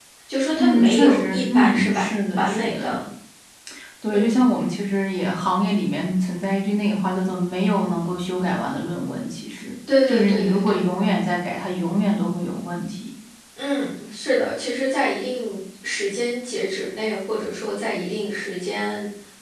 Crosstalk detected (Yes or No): Yes